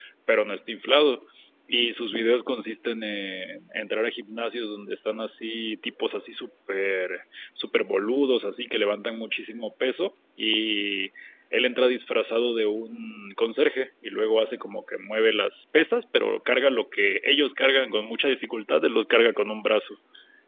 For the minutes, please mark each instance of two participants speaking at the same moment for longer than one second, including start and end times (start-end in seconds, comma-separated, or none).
none